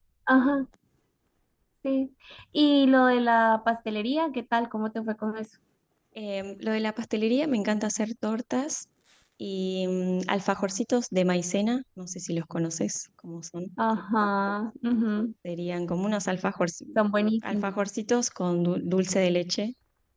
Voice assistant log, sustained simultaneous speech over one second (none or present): none